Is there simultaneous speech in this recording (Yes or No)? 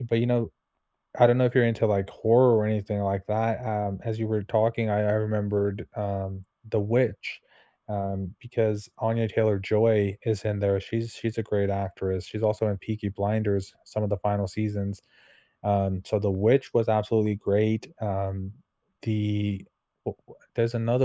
No